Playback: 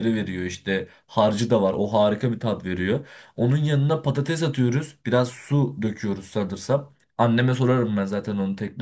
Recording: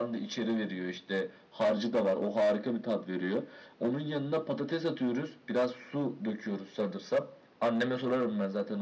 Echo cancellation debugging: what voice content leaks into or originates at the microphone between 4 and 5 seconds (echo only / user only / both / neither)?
echo only